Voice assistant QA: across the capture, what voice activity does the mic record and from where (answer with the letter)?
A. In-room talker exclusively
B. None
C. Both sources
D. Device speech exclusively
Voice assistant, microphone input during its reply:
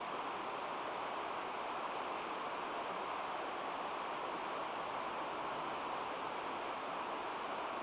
B